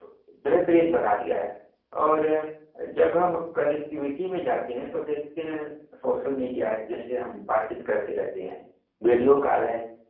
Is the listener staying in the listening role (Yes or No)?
Yes